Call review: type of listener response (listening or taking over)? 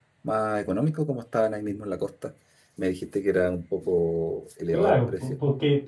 taking over